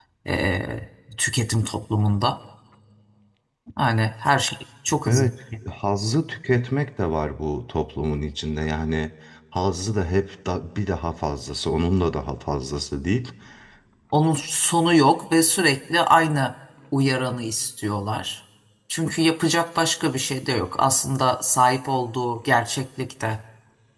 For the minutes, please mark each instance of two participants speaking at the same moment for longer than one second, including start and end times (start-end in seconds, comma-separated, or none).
none